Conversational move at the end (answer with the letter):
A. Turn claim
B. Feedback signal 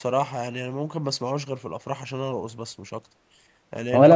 A